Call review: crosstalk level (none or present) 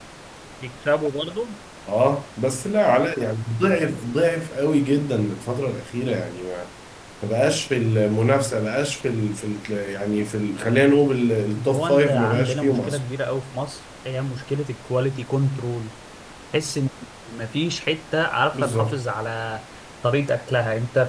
present